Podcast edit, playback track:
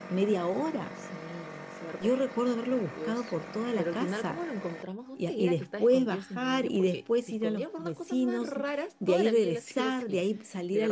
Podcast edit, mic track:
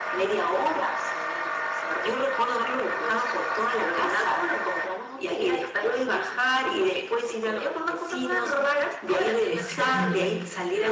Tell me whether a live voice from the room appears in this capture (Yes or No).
Yes